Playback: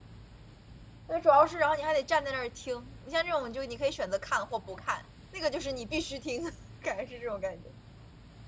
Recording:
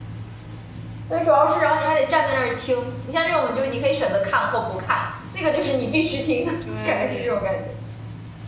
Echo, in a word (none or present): present